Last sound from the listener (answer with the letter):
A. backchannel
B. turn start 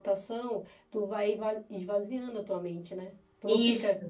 A